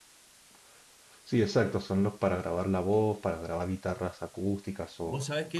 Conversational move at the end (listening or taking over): taking over